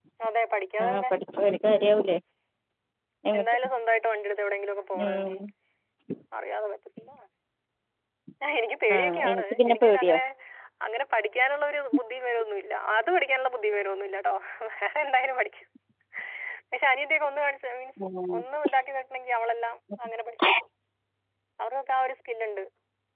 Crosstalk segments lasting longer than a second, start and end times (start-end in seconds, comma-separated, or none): 8.9-10.2